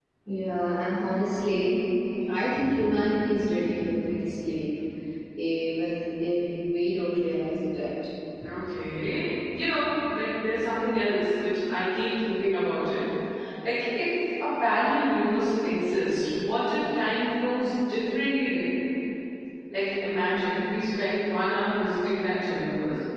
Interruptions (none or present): none